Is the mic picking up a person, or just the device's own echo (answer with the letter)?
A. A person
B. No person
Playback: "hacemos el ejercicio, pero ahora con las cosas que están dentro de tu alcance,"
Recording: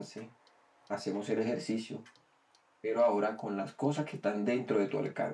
B